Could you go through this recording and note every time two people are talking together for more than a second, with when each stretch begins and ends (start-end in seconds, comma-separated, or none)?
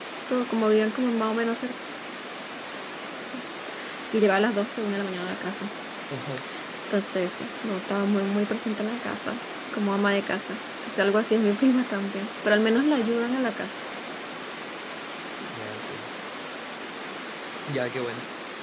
none